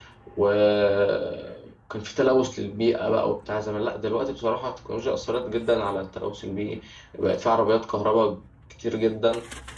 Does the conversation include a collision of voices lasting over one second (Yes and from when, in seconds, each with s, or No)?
No